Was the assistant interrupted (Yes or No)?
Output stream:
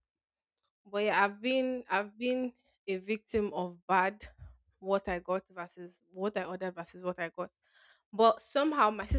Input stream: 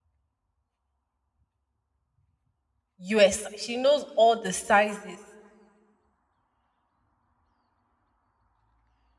Yes